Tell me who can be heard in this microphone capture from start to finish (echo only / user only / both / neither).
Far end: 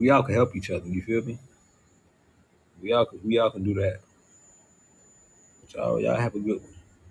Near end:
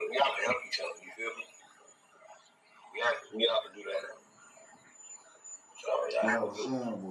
both